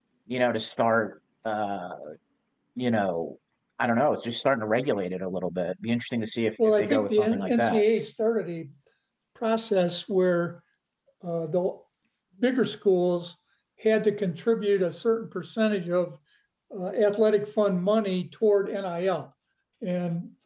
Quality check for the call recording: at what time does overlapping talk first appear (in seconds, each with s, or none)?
6.6 s